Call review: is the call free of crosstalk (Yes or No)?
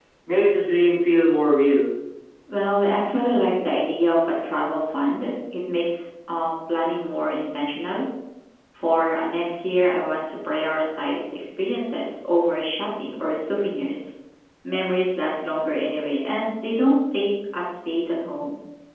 Yes